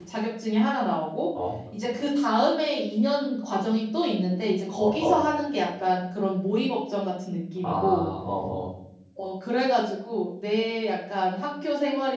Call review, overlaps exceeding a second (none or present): none